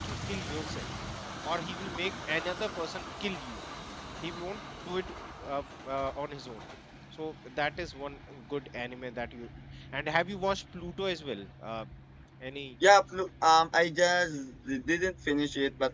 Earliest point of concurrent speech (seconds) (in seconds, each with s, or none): none